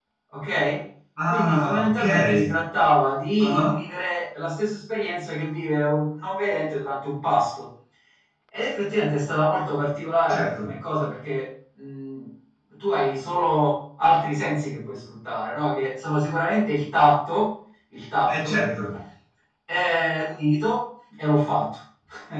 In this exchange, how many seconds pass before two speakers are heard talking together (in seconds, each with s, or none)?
1.3 s